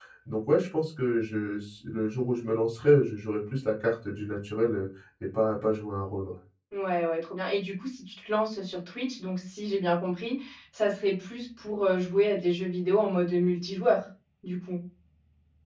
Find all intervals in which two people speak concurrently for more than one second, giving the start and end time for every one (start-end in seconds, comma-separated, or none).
none